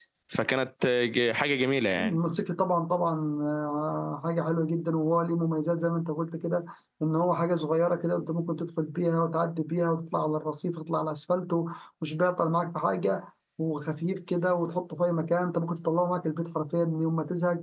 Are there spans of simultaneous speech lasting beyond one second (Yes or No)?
No